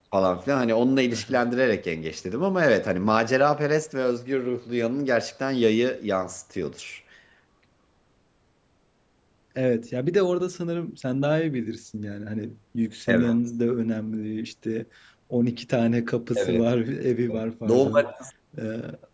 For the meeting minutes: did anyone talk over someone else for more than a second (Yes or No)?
No